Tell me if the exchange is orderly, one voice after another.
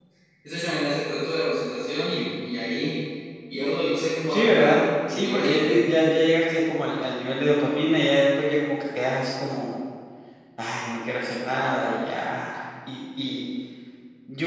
No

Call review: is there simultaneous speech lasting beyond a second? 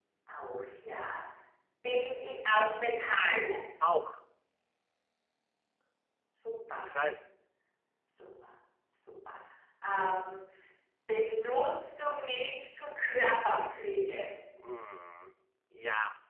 No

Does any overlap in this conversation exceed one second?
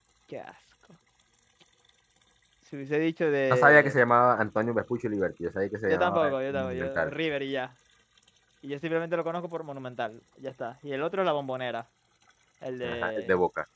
Yes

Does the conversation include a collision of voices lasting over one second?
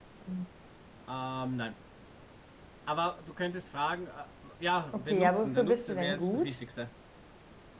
Yes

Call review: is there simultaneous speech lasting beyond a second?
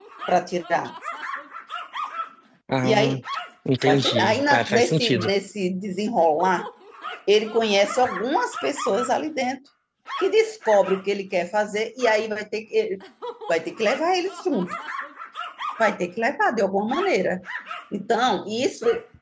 Yes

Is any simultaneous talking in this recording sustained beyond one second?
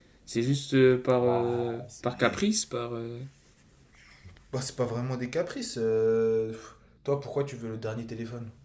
Yes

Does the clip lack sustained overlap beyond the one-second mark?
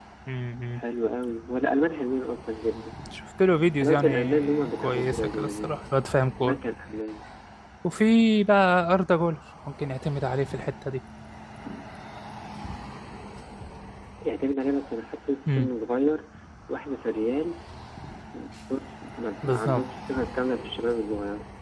No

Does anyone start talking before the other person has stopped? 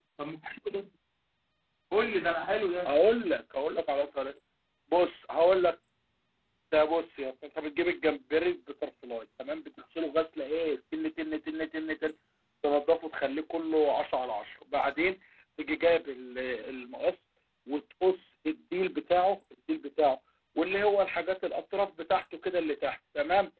No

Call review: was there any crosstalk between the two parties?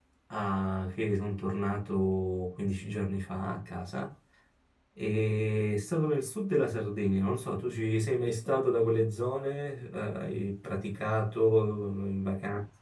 No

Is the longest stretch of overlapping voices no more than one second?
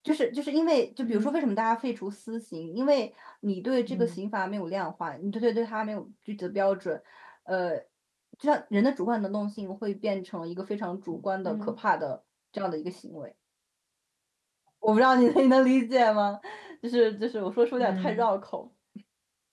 Yes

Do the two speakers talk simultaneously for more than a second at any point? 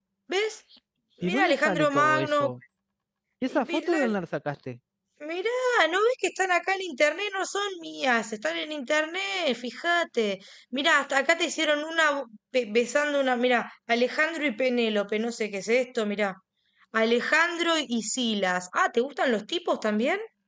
Yes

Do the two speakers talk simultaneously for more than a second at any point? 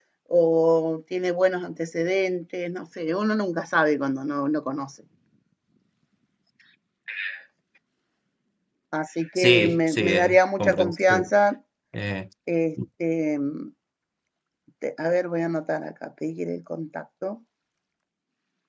Yes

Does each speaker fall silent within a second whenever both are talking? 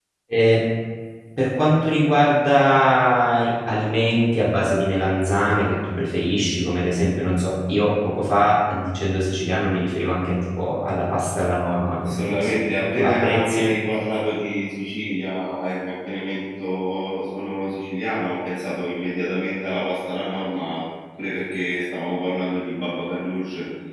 No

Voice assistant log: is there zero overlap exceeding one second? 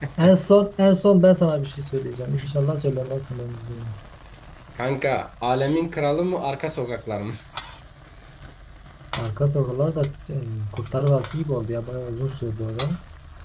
Yes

